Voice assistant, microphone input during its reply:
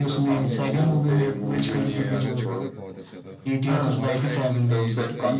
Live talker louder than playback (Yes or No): No